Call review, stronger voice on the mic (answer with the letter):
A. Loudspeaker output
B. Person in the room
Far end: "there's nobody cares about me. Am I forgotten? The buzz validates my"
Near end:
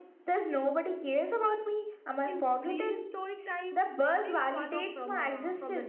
A